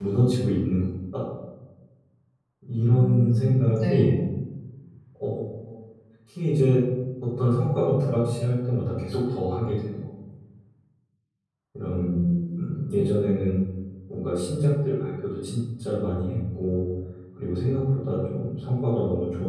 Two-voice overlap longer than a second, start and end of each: 2.9-4.2

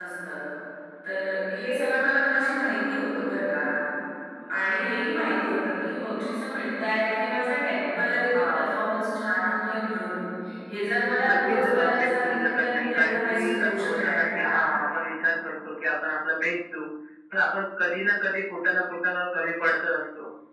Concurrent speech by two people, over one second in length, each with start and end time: 11.3-14.6

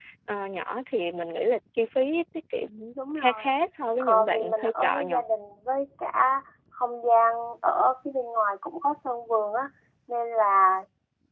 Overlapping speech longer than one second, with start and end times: 4.0-5.2

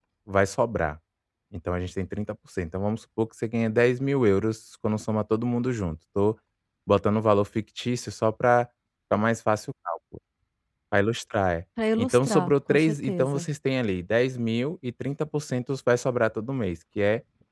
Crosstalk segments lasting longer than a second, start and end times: 12.0-13.4

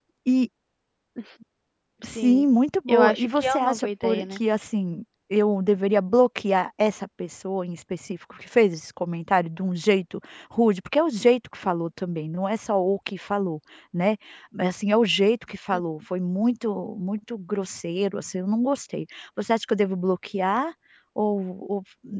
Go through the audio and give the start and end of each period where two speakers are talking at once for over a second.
2.9-4.4

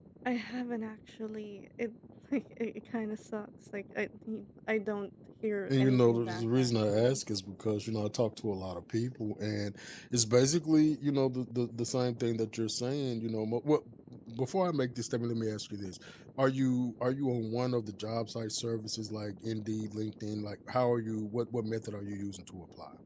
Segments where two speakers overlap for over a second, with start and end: 5.7-7.2

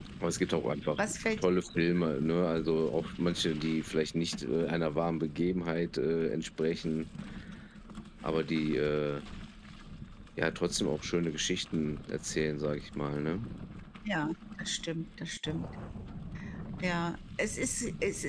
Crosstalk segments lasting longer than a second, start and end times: none

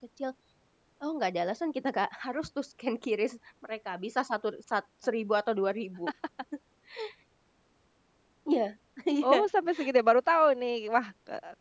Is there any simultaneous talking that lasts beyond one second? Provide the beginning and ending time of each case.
none

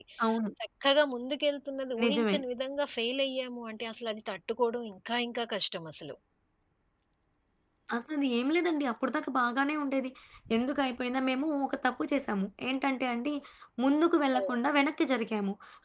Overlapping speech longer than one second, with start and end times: none

